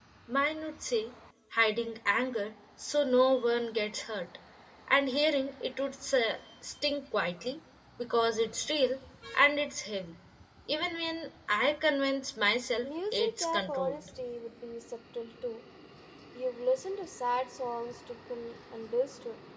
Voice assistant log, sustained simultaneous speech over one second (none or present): present